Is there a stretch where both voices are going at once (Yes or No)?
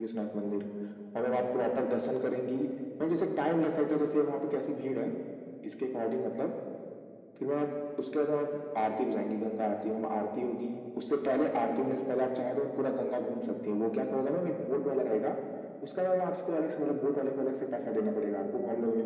No